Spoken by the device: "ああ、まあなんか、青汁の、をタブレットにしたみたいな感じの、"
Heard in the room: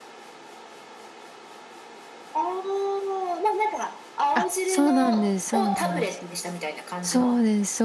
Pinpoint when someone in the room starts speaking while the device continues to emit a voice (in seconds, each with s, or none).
4.3 s